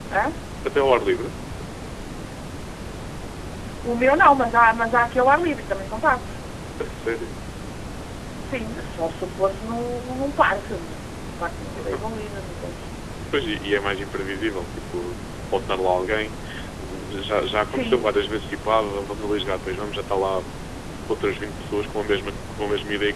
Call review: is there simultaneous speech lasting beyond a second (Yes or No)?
No